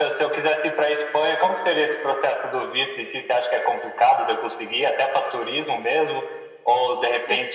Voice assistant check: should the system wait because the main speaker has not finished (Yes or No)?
Yes